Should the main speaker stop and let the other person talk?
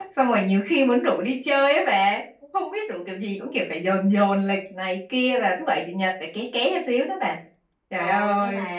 Yes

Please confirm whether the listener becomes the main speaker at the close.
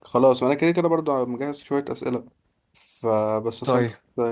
No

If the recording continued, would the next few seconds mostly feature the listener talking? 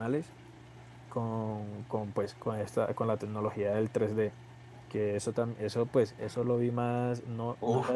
Yes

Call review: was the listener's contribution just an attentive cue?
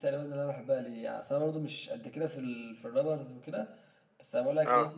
Yes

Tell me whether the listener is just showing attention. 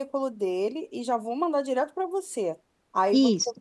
Yes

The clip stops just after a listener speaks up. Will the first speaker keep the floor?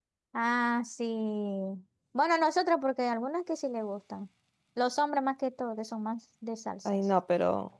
No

